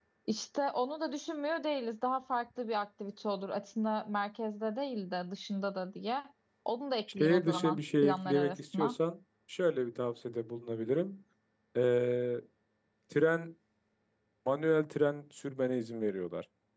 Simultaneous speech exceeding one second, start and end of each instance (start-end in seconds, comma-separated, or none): 7.1-9.0